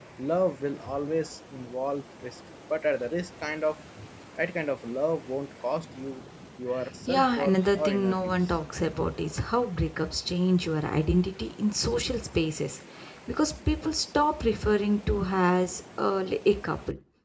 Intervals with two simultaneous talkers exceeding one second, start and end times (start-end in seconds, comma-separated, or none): 7.1-8.6